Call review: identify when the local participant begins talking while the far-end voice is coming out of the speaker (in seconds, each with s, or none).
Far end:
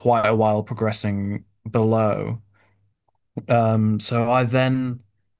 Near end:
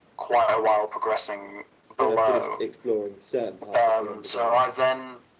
2.0 s